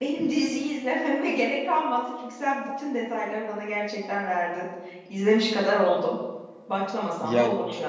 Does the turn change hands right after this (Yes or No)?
Yes